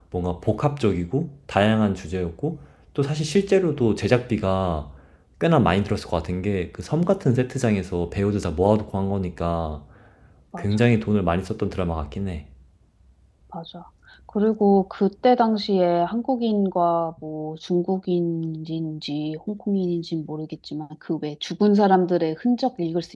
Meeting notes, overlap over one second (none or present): none